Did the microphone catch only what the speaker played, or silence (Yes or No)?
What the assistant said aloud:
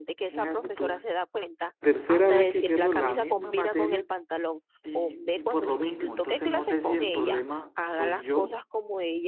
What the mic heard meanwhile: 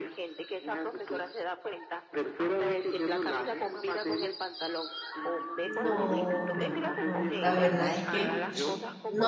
No